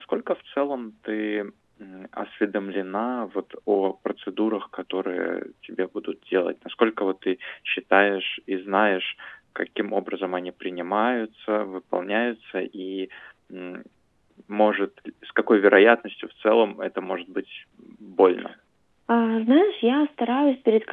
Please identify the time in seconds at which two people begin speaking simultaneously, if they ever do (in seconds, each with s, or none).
none